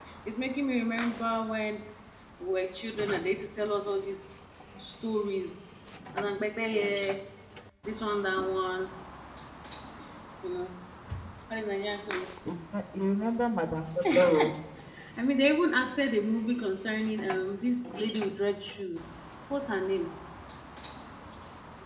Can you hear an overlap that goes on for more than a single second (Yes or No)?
No